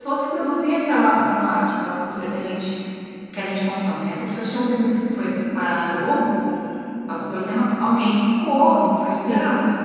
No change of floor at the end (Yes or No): Yes